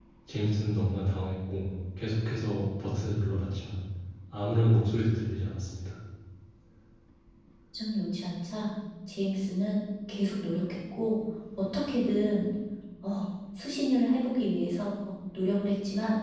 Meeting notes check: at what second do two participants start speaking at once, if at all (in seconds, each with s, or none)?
none